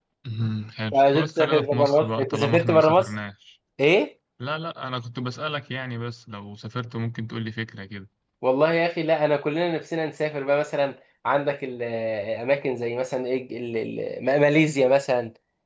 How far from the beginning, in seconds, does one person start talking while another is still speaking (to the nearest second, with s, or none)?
1 s